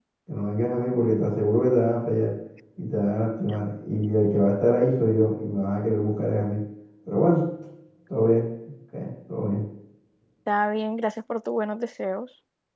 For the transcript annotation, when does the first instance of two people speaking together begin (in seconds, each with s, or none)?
none